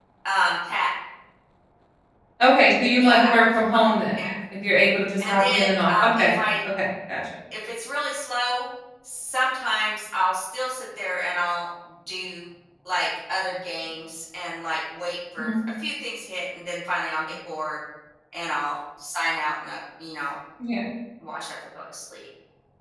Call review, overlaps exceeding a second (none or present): present